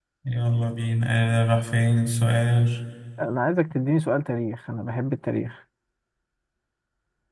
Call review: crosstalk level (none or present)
none